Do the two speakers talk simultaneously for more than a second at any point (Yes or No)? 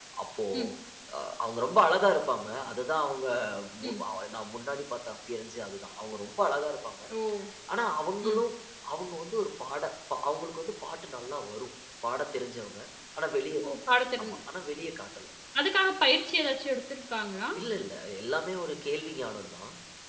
No